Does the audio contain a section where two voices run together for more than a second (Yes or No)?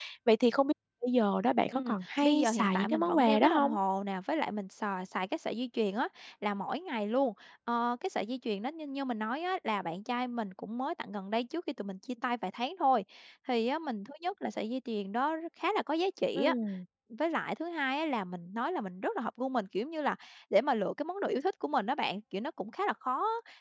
Yes